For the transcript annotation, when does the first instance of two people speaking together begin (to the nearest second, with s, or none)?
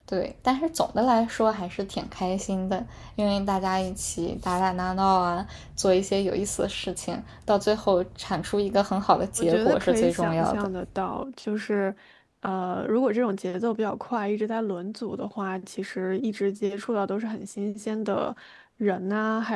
9 s